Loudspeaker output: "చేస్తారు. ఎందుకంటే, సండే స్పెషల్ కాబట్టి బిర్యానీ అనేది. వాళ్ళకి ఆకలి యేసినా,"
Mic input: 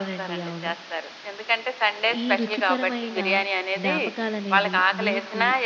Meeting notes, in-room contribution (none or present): present